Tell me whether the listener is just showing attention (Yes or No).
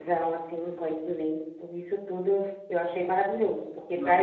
Yes